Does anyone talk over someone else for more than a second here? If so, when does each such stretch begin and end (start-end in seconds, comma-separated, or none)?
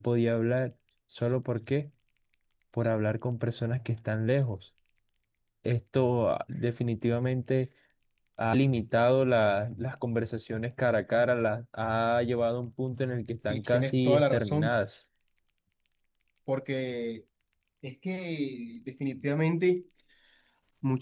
13.5-14.7